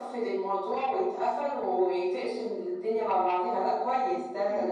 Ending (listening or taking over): taking over